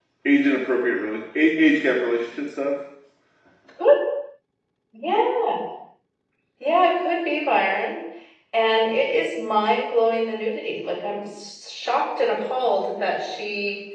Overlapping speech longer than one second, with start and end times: none

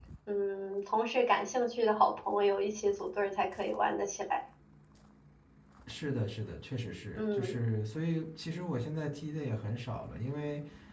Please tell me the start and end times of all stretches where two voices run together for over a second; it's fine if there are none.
none

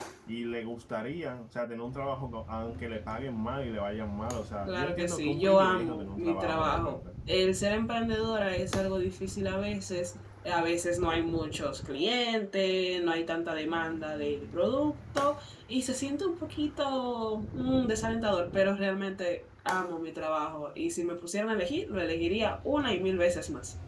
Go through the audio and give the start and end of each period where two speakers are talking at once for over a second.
4.7-7.0

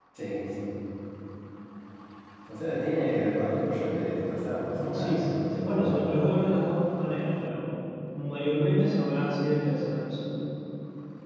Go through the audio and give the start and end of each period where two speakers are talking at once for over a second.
4.8-6.0

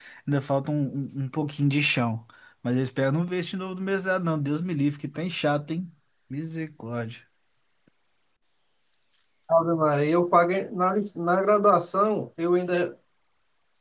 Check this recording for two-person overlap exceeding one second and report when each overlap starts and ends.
none

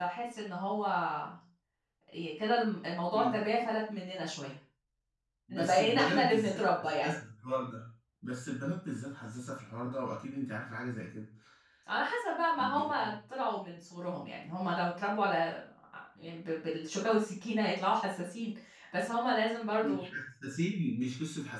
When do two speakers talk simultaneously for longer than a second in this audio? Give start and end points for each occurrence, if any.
5.5-7.1

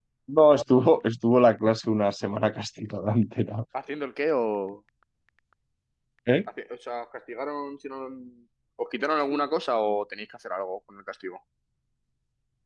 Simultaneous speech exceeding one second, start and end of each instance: none

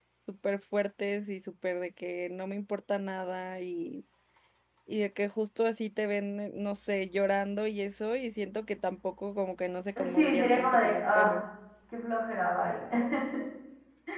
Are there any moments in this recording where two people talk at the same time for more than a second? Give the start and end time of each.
10.0-11.3

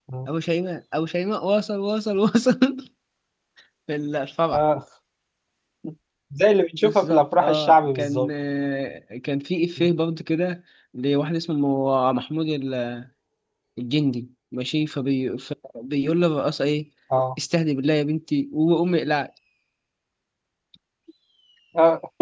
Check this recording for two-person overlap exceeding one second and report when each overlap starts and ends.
6.8-8.3

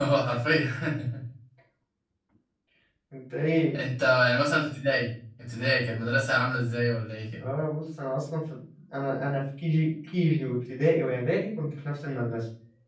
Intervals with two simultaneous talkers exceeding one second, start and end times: none

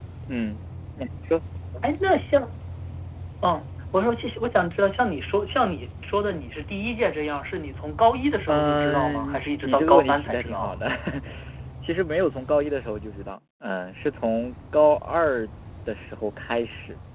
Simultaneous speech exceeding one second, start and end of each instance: 8.5-10.7

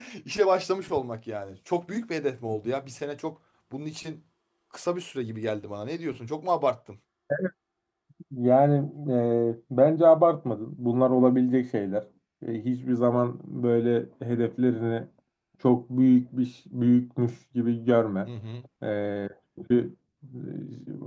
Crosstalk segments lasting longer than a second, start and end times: none

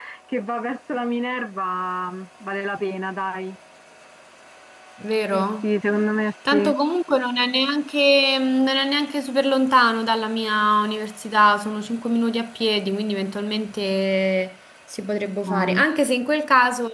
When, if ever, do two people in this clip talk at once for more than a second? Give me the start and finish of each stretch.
none

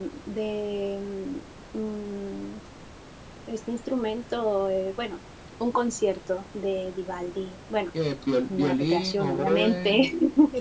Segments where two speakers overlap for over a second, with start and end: 8.5-10.0

